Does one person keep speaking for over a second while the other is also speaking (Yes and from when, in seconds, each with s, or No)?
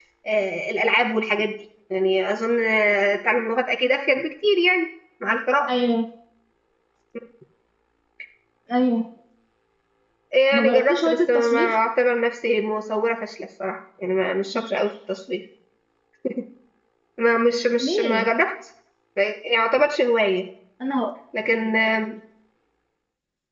Yes, from 10.5 s